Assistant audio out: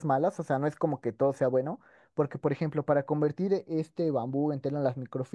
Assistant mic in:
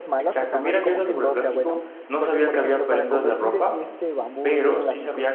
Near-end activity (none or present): present